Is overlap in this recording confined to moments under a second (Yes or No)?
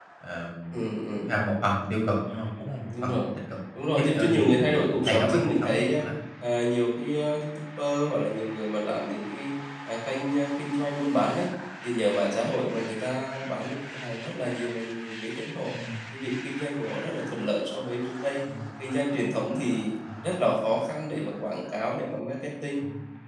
No